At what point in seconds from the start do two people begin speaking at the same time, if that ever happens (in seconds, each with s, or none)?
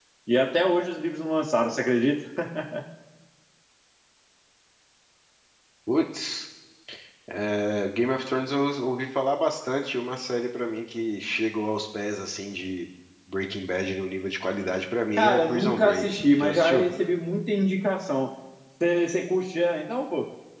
15.2 s